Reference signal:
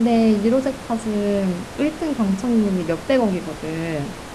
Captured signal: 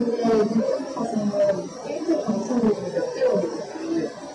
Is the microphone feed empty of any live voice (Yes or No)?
Yes